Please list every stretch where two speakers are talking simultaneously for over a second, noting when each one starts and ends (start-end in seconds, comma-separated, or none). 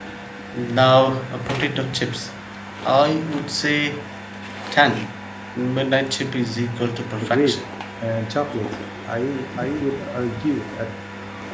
none